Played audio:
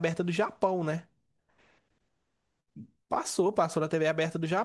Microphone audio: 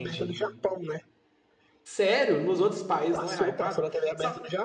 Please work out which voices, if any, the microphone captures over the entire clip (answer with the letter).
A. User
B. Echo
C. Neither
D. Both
D